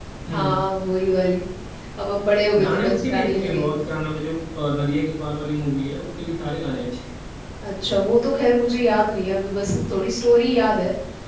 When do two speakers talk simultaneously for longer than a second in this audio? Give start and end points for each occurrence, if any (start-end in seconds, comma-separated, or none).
2.6-3.8